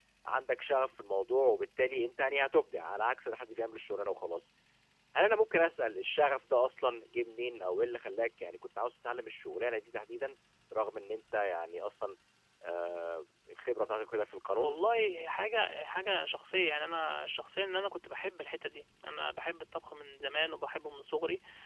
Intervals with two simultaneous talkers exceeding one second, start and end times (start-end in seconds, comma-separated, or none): none